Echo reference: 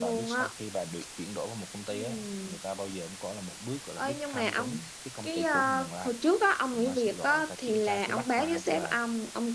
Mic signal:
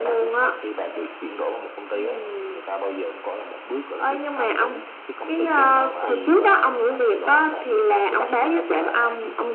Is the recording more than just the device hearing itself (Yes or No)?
Yes